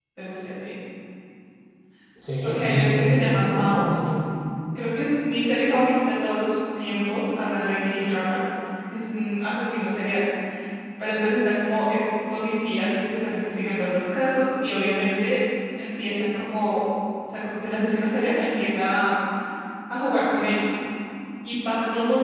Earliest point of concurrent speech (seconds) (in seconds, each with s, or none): 2.4 s